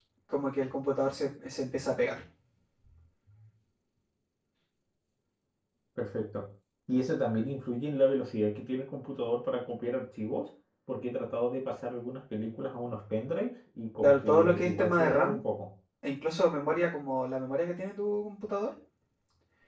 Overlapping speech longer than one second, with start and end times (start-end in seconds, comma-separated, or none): 14.0-15.4